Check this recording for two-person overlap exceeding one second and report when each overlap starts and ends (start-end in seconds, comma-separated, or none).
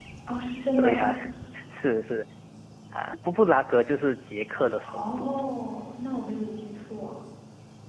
none